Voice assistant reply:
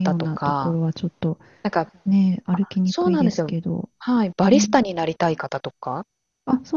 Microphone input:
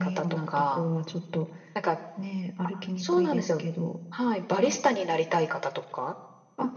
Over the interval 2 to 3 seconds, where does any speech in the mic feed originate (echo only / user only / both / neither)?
echo only